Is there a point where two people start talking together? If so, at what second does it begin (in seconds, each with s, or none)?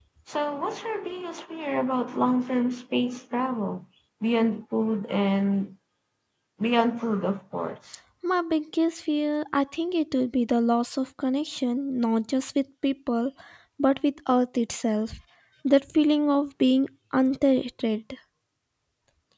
none